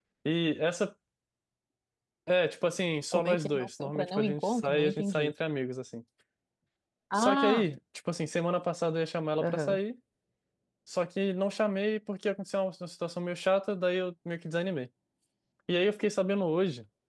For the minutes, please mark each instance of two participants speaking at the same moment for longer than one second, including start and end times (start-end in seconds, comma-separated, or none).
3.1-5.3